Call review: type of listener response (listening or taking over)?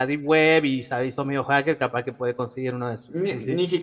taking over